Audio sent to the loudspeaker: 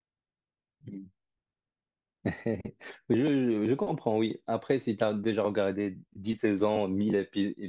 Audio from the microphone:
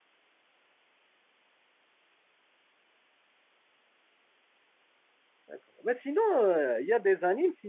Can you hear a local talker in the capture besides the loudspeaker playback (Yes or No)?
Yes